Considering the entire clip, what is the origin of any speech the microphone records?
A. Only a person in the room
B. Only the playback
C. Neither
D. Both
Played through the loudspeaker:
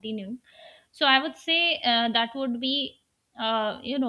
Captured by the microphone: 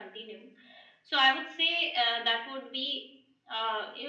B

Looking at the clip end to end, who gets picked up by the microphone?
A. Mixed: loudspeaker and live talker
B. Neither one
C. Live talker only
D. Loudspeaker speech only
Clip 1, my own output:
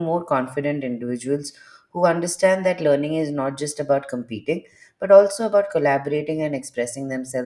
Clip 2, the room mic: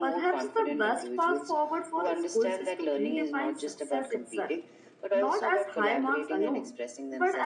A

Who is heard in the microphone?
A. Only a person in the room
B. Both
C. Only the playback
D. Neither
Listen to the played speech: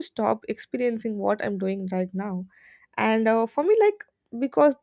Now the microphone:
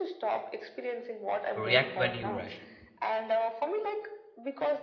B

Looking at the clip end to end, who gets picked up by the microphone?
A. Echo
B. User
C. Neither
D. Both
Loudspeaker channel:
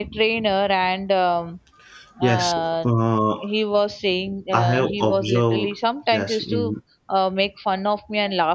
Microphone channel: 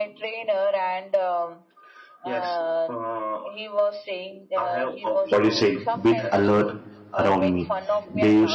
D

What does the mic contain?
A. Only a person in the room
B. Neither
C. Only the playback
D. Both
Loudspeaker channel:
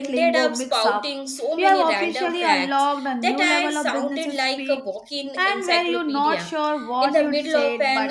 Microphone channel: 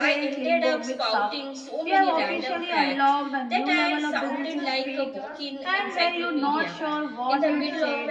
D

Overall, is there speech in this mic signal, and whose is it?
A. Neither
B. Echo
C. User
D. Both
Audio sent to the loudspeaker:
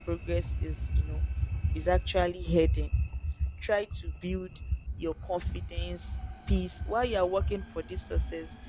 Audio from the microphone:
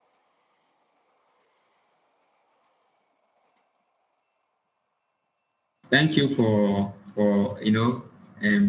C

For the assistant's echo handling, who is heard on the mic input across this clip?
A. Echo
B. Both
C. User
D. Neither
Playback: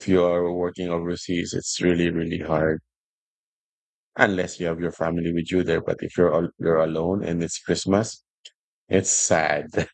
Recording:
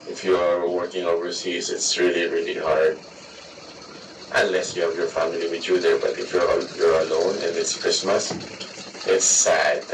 A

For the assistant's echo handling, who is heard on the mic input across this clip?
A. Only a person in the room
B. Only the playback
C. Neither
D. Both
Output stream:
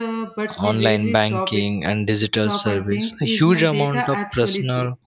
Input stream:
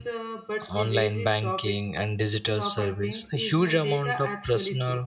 B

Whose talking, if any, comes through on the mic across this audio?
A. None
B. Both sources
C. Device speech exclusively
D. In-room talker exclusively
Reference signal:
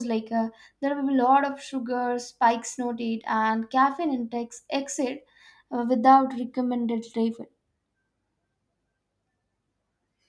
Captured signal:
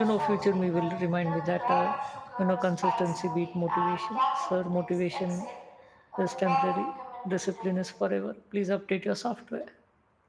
B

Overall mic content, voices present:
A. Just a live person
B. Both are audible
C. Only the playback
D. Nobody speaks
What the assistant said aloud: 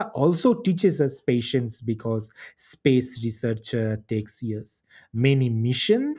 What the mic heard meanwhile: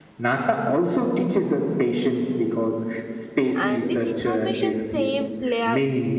B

